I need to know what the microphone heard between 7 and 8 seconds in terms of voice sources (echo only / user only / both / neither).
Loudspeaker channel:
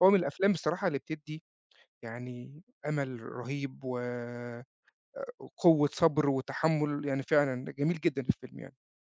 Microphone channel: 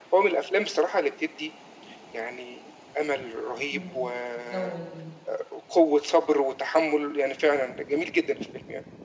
echo only